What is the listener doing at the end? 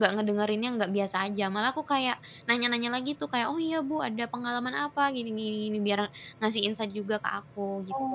taking over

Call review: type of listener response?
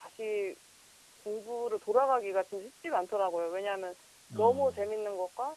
listening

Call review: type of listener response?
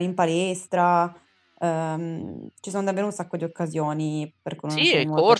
taking over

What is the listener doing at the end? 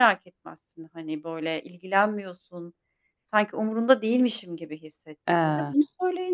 listening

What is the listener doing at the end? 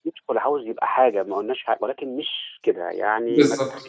taking over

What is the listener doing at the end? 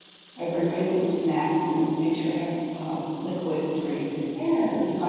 listening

